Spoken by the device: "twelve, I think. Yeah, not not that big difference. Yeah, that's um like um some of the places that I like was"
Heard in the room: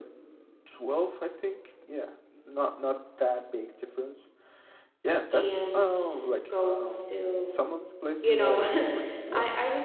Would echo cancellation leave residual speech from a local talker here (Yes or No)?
Yes